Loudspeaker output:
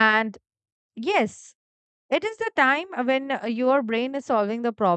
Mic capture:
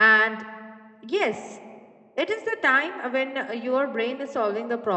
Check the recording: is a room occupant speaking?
No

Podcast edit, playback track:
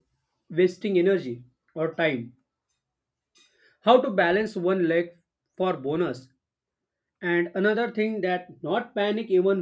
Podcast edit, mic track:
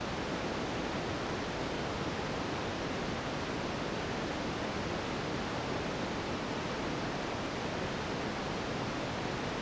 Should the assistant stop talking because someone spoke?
No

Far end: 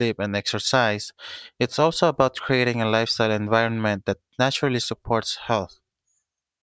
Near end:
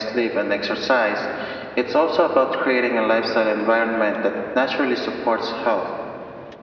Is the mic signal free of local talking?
Yes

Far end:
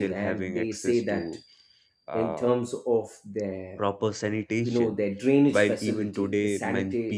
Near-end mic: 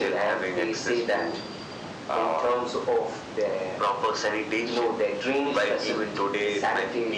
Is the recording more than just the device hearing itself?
No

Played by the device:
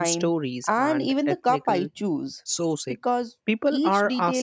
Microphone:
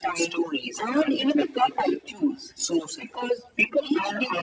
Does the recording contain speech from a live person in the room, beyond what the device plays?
No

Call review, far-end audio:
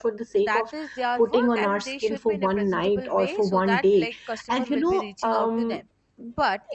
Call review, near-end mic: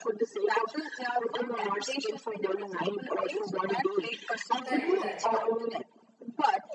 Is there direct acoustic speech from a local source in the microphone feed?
Yes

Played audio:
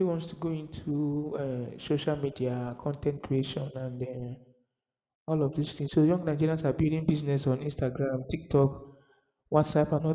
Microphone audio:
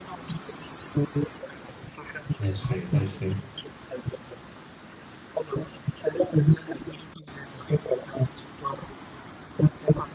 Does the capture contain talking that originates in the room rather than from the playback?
Yes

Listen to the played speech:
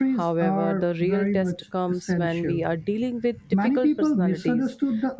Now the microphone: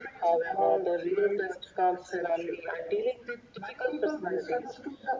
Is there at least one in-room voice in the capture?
No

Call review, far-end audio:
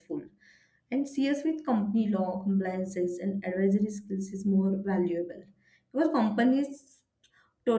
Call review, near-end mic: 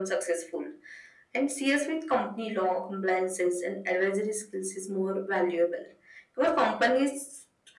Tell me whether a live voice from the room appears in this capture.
No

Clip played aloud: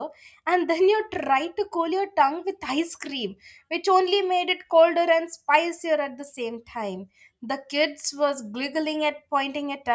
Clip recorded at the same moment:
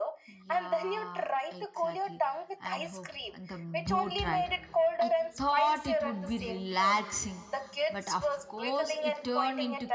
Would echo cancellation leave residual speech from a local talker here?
Yes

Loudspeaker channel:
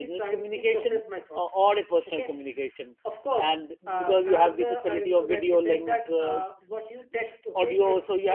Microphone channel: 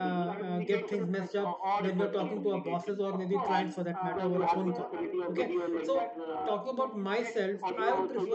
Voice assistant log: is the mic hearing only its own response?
No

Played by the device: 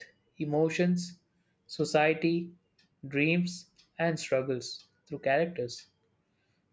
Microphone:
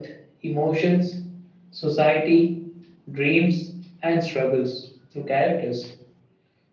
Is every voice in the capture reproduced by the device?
Yes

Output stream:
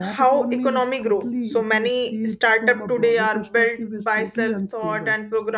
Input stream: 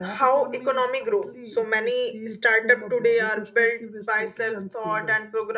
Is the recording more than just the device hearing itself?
No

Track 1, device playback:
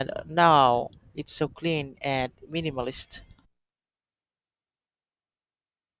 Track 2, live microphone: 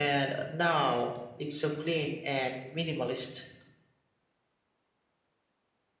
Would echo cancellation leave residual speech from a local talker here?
No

